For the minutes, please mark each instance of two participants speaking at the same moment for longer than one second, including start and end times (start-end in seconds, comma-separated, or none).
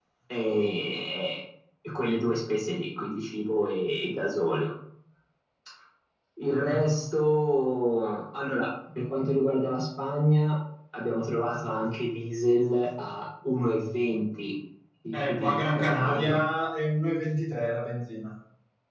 15.1-16.3